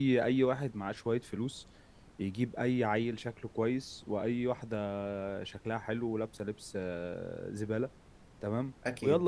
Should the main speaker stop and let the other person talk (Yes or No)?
No